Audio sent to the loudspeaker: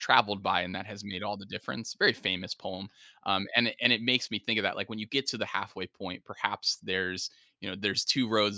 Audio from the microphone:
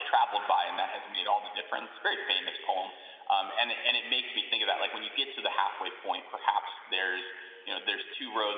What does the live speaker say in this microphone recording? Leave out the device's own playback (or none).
none